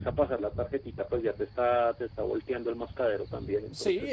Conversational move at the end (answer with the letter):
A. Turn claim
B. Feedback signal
A